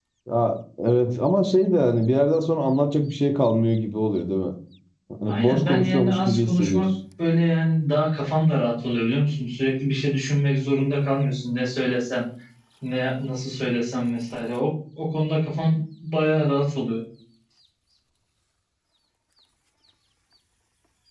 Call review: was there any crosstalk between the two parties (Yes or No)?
Yes